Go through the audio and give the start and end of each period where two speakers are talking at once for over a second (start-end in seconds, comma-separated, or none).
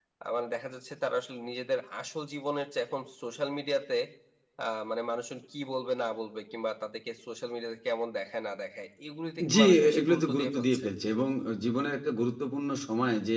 9.5-10.8